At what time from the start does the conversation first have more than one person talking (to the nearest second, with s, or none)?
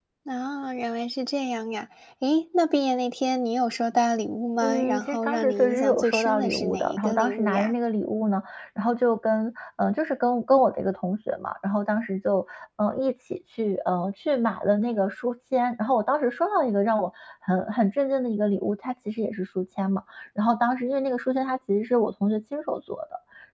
5 s